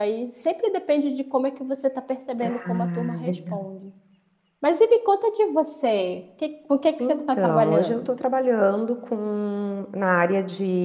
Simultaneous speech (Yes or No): Yes